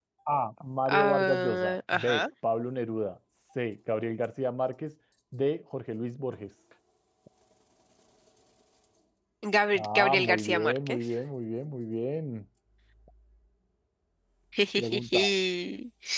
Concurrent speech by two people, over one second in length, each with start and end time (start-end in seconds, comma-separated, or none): 0.9-2.2, 9.7-11.0